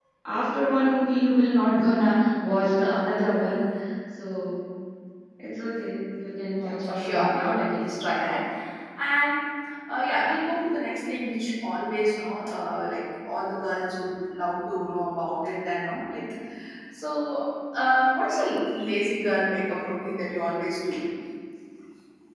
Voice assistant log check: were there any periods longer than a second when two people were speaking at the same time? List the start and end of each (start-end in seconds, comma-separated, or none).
6.6-7.9